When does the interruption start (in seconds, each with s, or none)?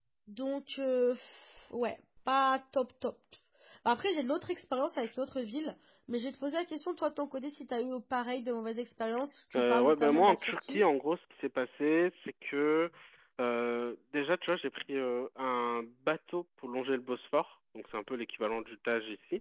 9.5 s